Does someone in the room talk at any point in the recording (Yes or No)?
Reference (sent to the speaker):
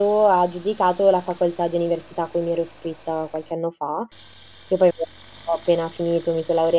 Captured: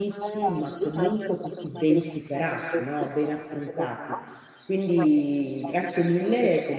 Yes